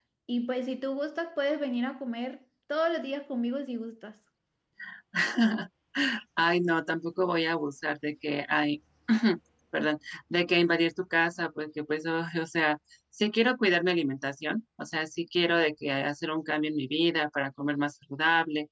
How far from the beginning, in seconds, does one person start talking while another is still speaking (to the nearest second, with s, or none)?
none